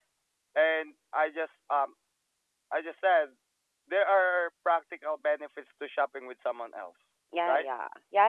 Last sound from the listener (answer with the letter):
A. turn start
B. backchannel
A